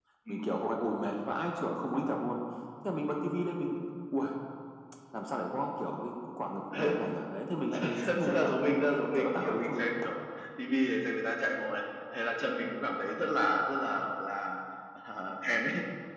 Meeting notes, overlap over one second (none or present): present